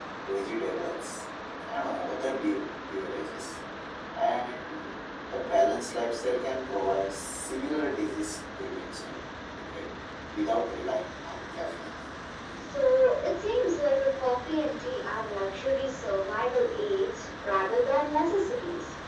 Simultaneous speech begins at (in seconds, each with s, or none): none